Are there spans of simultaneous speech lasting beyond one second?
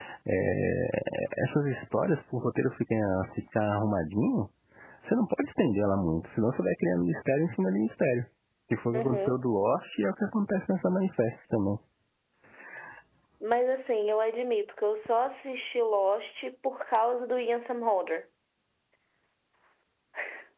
No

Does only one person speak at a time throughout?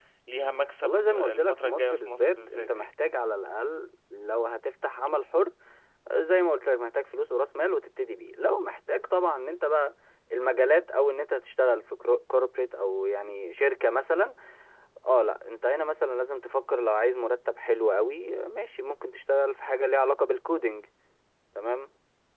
No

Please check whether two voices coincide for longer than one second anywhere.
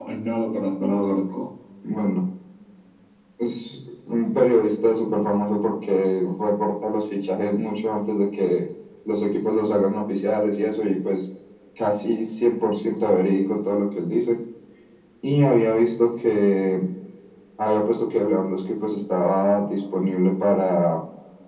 No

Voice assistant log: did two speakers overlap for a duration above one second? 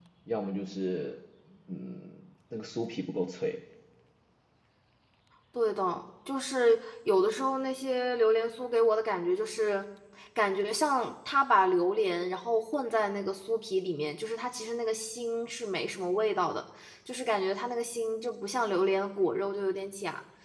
No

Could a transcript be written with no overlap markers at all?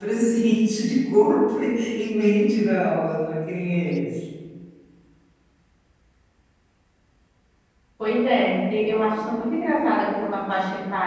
Yes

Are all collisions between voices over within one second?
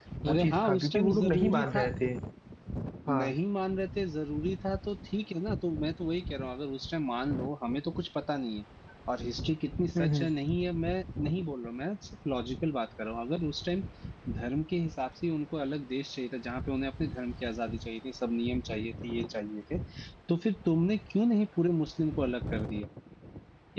No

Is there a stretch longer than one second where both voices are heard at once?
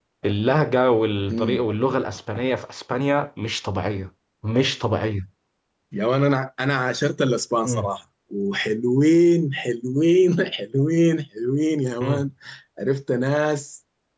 No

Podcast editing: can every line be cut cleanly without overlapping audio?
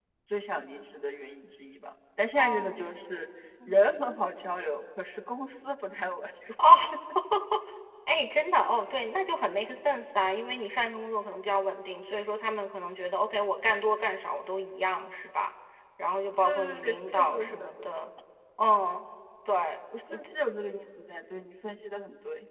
No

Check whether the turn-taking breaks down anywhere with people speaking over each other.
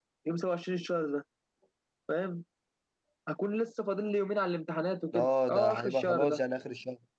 Yes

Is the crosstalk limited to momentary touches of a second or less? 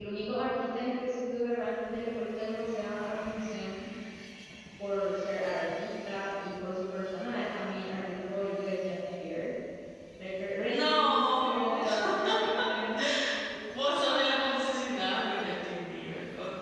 No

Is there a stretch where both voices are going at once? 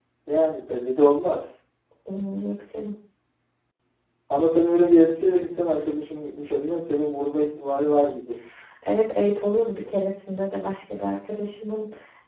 No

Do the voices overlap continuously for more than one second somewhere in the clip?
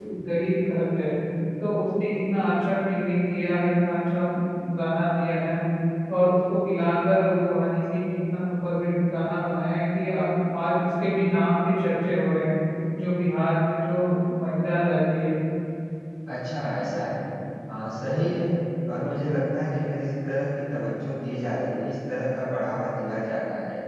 No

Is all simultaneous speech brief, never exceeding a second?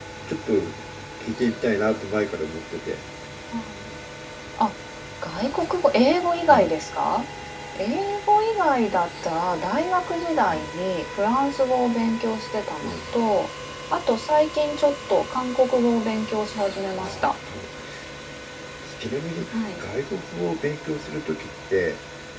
Yes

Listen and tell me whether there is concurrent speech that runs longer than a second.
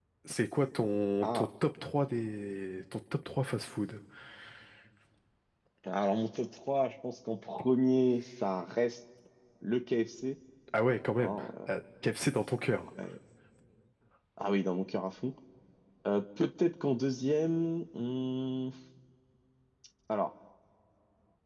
No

